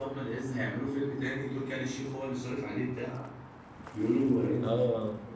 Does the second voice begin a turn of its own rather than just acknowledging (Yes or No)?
Yes